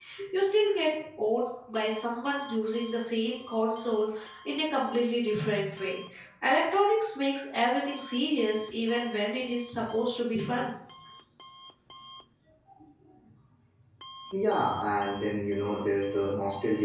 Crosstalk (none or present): none